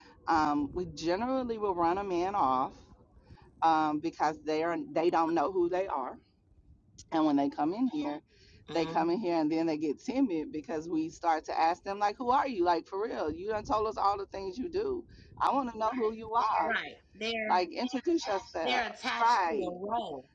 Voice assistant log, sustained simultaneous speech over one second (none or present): none